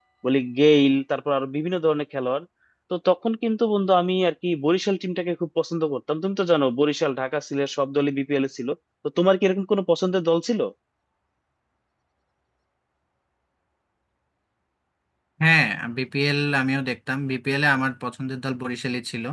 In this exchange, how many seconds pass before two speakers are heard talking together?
none

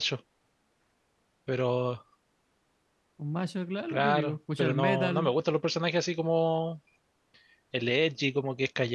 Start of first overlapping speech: 3.9 s

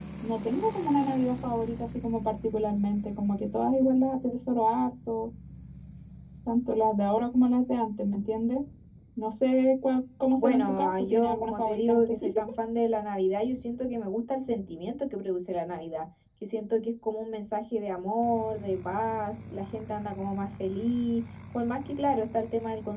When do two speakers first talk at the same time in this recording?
10.4 s

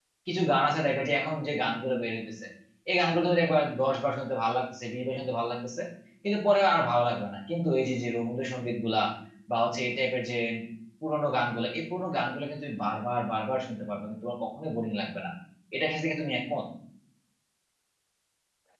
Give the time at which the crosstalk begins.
none

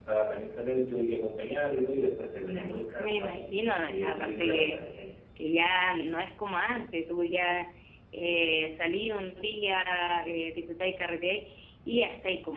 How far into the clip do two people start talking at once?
2.6 s

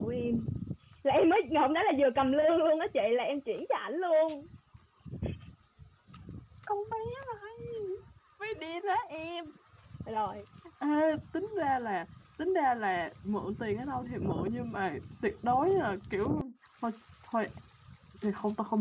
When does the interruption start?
none

